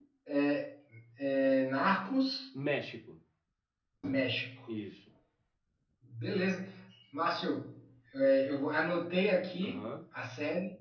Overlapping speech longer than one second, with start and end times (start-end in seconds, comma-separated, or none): none